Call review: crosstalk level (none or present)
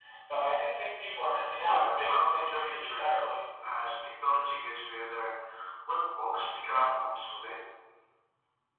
present